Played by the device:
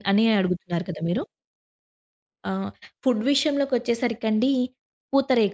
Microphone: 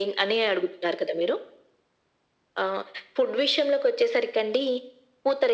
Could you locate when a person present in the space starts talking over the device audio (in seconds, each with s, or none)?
none